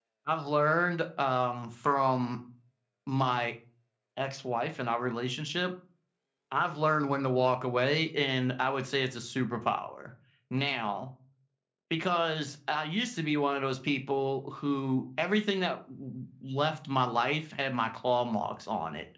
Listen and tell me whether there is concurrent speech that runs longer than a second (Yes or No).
No